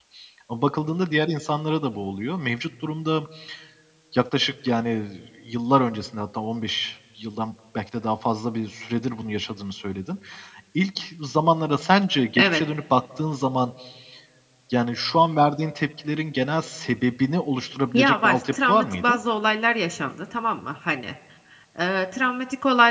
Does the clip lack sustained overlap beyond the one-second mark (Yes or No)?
No